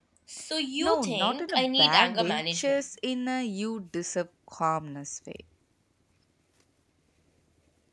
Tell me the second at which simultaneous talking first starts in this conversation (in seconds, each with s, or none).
0.8 s